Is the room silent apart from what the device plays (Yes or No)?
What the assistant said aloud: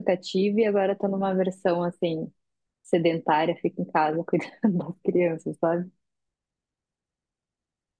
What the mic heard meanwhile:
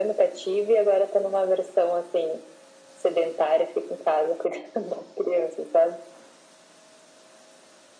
Yes